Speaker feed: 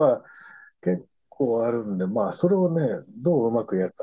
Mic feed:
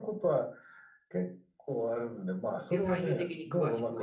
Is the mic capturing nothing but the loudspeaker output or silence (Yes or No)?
No